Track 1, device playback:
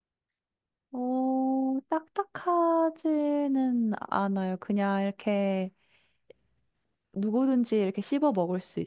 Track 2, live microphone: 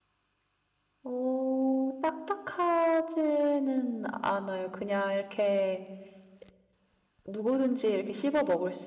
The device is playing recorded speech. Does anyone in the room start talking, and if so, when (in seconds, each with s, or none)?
none